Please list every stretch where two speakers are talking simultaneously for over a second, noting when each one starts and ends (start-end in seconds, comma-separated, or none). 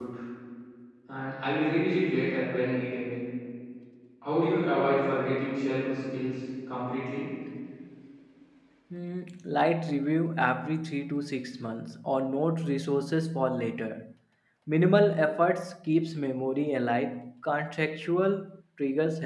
none